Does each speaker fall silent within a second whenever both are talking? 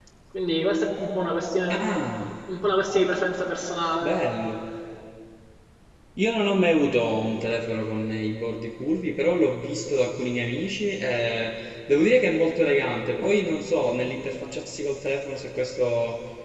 Yes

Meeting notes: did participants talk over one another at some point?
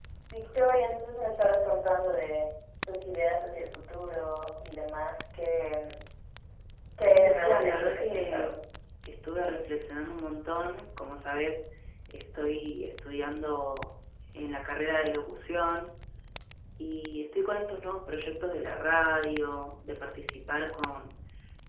Yes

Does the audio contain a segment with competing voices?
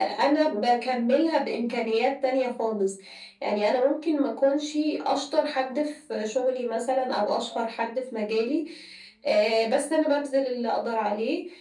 No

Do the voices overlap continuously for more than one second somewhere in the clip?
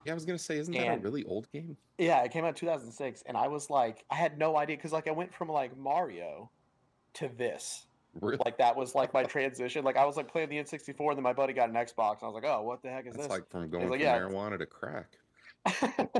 No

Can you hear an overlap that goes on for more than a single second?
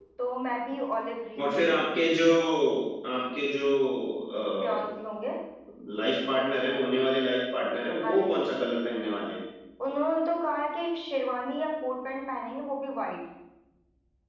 No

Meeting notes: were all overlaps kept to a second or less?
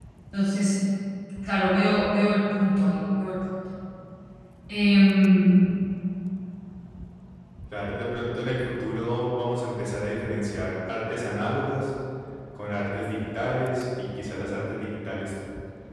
Yes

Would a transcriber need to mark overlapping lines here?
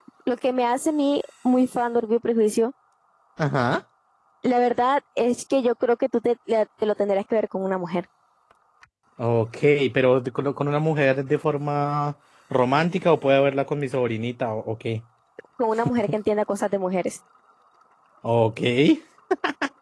No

